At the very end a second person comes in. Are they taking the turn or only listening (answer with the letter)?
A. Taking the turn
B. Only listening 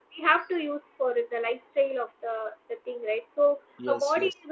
B